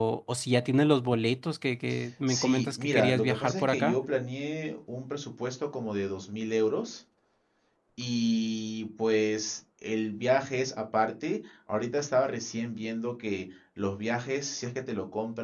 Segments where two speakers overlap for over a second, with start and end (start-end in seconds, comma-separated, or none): 2.3-4.0